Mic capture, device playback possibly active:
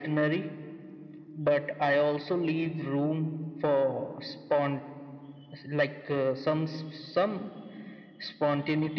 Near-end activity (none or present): none